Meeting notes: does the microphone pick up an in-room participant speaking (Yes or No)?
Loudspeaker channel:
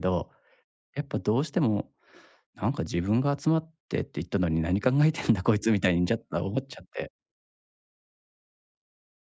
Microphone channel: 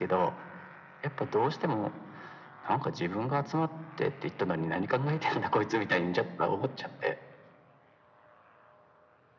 No